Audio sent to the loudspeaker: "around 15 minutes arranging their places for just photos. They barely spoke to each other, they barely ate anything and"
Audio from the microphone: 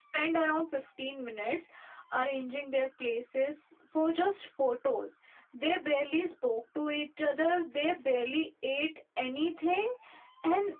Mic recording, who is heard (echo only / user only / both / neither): echo only